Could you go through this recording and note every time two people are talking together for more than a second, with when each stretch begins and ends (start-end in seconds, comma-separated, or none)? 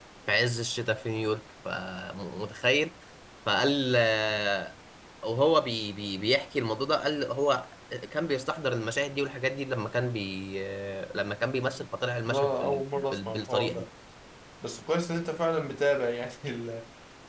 12.2-13.8